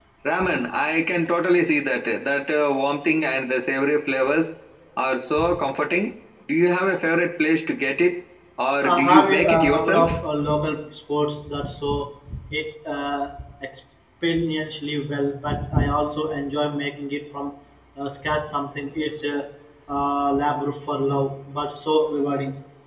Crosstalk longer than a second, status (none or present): present